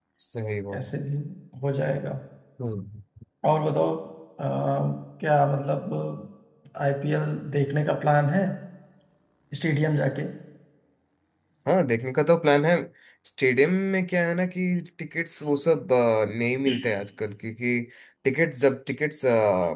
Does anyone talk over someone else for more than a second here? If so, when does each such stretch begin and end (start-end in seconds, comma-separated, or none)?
none